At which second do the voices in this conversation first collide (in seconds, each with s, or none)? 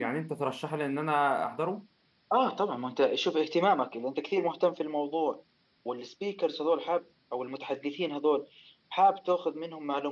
none